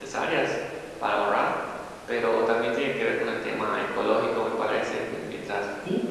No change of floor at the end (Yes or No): Yes